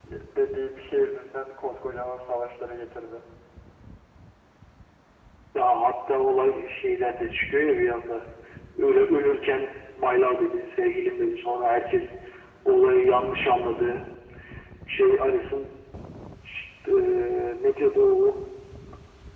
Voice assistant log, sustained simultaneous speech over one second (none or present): none